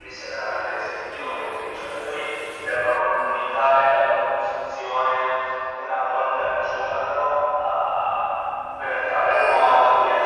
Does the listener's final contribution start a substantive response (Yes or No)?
No